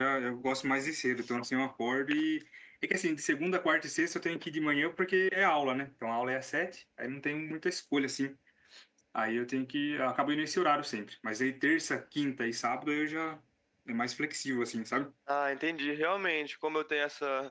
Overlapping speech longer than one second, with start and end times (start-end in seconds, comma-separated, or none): none